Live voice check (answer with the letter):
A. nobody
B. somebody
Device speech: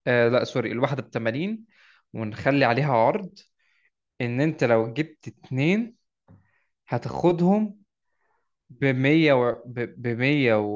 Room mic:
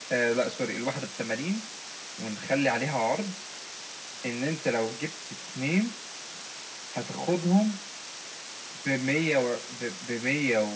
A